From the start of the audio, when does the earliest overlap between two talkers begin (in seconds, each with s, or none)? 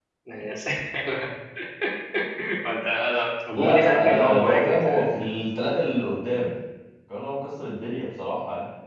3.6 s